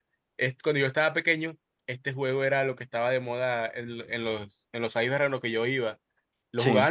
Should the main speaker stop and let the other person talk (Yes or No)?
No